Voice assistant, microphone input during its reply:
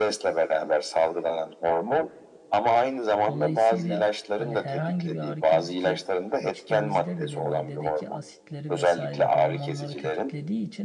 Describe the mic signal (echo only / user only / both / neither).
both